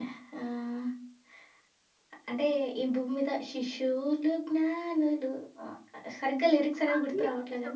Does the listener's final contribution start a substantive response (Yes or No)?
Yes